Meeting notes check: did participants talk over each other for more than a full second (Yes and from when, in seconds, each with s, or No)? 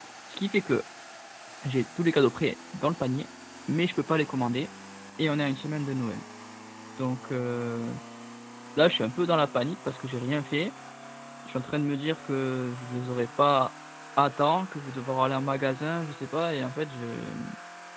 No